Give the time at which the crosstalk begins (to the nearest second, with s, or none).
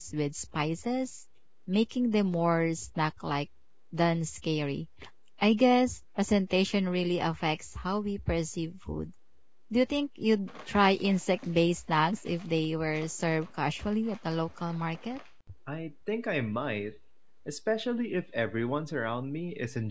none